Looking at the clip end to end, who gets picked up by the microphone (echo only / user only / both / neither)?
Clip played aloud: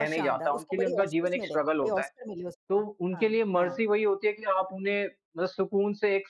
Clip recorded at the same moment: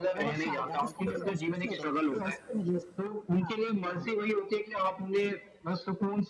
echo only